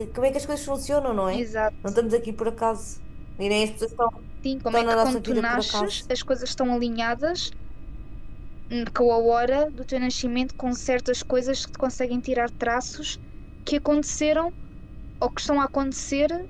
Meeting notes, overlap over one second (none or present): present